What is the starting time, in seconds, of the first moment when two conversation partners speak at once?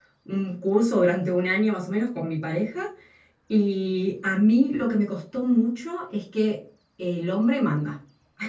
none

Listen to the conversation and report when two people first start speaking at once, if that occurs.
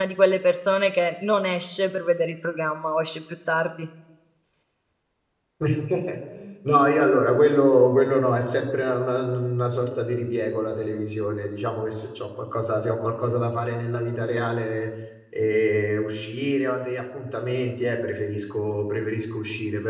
none

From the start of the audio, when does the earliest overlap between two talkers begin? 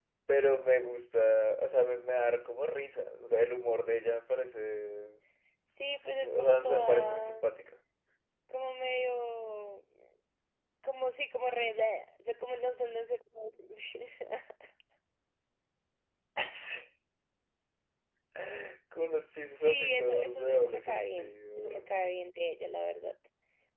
6.0 s

